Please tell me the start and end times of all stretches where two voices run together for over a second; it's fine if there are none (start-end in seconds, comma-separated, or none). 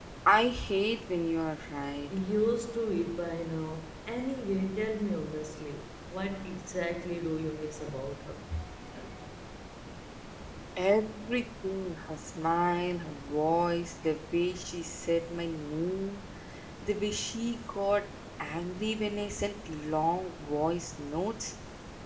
none